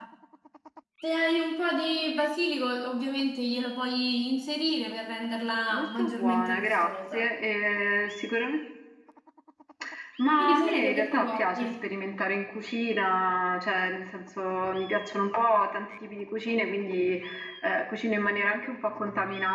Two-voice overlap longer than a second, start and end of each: 5.7-7.3, 10.4-11.9

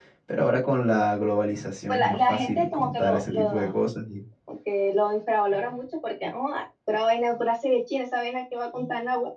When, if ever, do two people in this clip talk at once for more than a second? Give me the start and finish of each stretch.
1.9-3.7

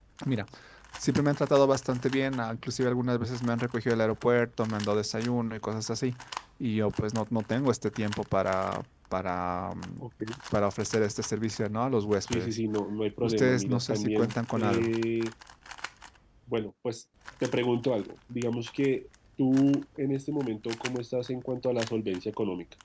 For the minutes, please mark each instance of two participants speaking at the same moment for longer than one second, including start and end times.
13.2-14.9

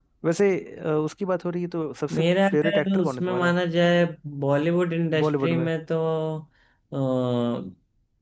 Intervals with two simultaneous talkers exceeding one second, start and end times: 2.1-3.5

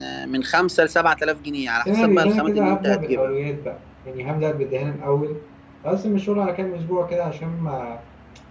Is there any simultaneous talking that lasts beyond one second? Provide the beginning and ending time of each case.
1.9-3.3

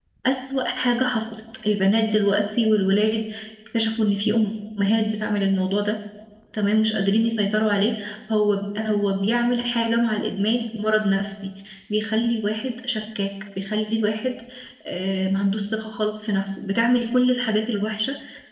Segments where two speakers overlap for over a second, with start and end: none

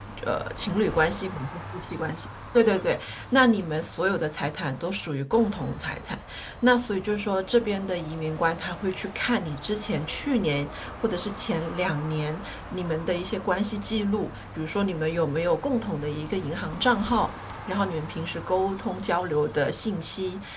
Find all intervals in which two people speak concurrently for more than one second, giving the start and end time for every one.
none

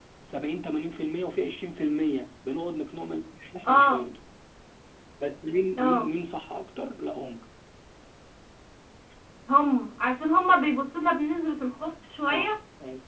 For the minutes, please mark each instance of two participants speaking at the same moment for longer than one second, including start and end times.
none

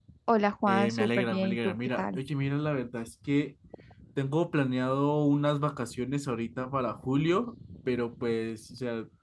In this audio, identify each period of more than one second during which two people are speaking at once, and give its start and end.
0.7-2.2

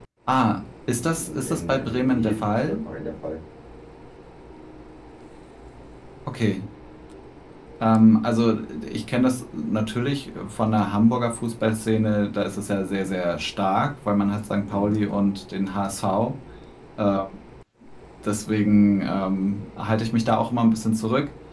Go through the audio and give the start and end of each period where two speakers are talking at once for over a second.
1.1-2.8

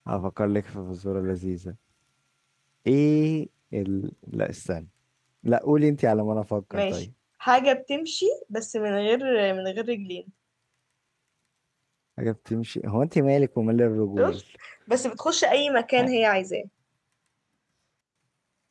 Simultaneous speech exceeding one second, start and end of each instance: none

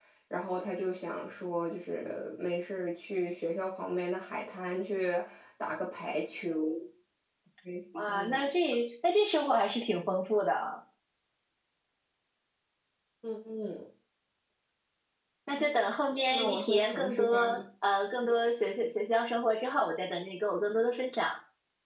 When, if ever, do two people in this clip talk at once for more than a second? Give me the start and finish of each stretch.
16.3-17.6

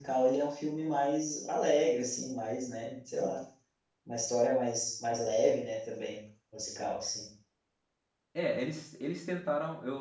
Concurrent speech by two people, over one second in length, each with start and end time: none

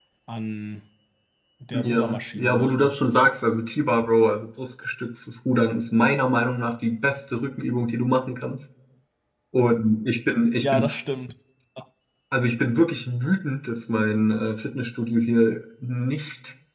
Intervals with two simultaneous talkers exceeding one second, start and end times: 1.7-3.3

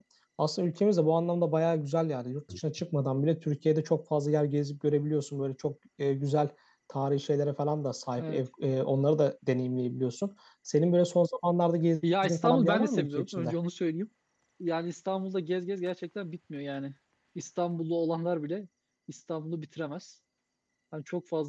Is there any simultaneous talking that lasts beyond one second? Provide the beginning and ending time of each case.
12.2-13.5

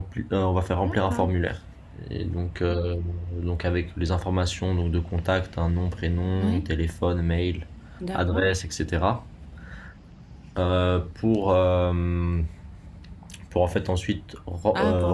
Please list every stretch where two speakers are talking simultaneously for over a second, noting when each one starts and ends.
none

